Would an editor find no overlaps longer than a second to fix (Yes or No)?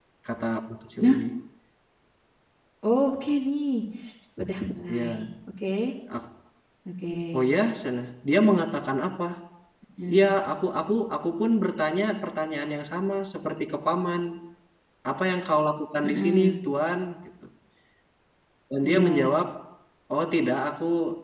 Yes